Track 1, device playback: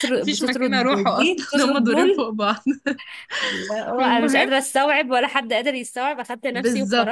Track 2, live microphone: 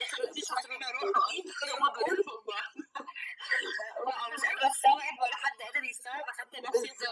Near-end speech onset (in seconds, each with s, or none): none